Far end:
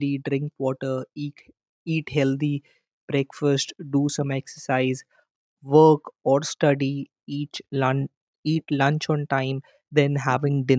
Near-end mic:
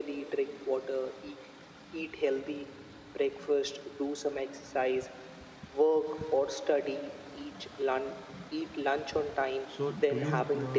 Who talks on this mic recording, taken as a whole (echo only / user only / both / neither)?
both